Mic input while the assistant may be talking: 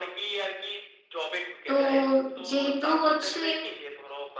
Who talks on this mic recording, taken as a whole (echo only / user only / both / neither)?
both